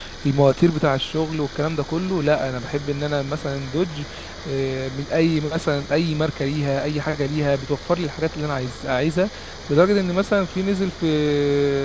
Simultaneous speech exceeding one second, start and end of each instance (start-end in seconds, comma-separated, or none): none